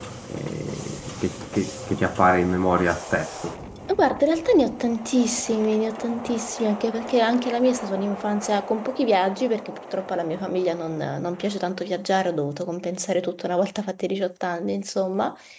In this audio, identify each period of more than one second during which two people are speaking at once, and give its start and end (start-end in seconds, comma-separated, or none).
none